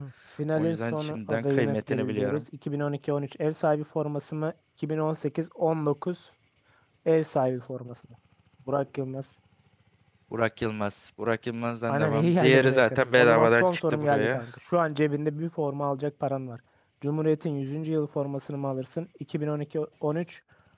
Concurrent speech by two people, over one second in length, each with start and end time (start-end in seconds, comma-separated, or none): 0.6-2.4, 11.9-14.5